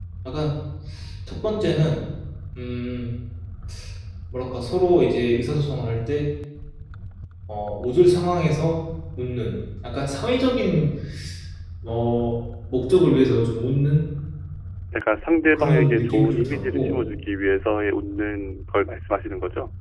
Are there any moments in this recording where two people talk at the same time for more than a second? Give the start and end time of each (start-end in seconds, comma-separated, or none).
15.5-16.9